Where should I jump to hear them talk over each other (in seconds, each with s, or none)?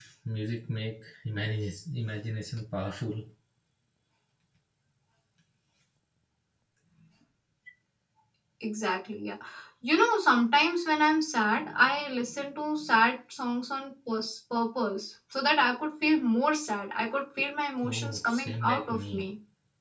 17.8 s